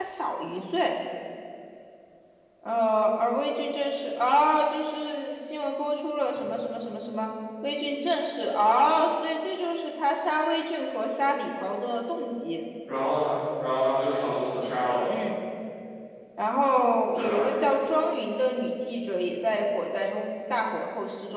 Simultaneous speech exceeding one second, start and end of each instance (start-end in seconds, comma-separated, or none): none